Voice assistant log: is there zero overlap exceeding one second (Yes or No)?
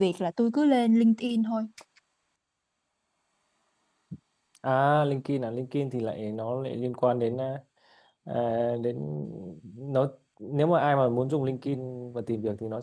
Yes